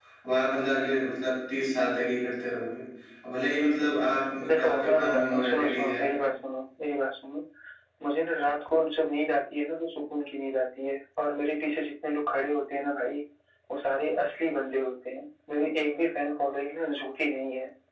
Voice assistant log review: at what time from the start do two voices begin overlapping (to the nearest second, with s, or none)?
4 s